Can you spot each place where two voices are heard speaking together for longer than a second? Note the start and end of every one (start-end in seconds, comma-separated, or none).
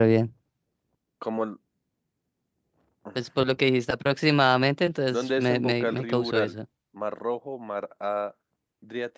5.1-6.5